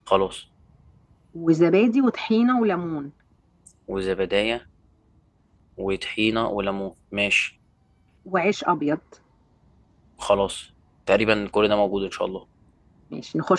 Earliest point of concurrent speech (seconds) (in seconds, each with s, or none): none